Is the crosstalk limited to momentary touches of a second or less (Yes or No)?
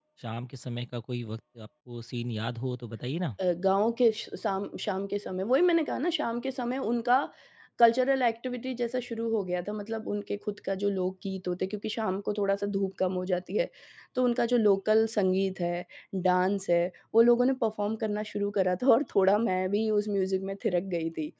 Yes